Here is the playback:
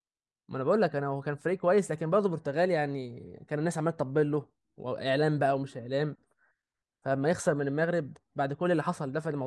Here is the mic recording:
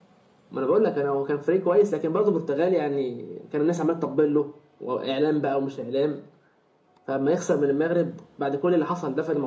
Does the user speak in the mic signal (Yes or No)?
No